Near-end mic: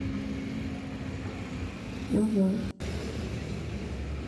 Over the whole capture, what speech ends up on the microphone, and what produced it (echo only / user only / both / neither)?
user only